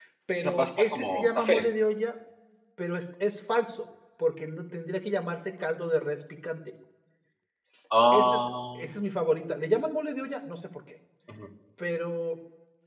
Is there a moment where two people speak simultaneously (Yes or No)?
Yes